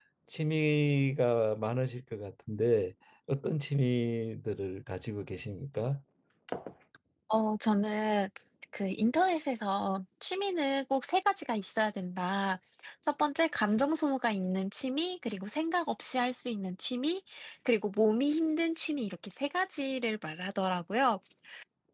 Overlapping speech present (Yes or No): No